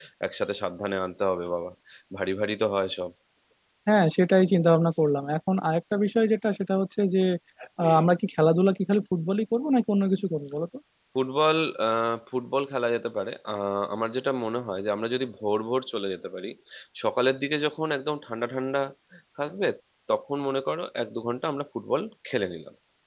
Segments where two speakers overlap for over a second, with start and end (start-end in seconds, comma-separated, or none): none